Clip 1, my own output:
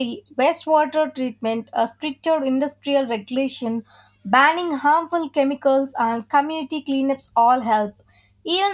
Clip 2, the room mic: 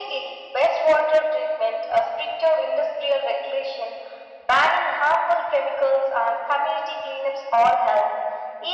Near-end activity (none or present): none